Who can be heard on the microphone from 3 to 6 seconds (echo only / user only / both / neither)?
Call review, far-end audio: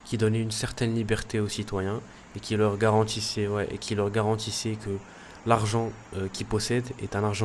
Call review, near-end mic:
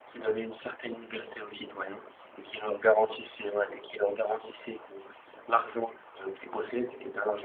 echo only